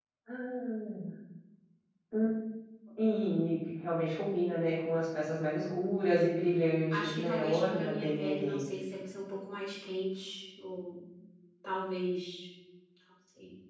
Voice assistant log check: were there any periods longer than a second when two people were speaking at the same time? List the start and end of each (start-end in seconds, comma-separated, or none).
6.9-8.6